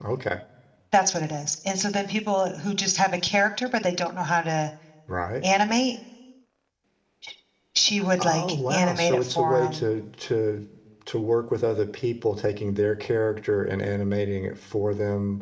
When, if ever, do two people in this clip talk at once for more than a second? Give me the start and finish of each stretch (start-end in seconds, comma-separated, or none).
8.2-9.8